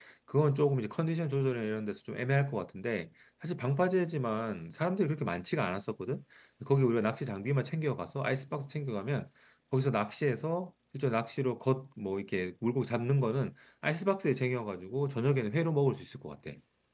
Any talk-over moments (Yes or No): No